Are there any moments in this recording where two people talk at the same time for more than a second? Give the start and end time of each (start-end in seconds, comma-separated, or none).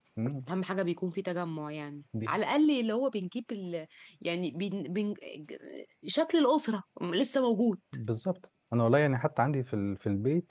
none